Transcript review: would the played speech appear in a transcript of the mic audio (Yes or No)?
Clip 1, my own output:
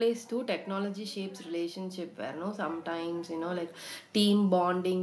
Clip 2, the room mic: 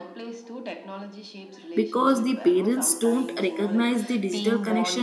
Yes